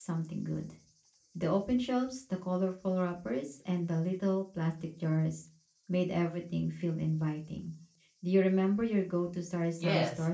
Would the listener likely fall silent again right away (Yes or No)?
No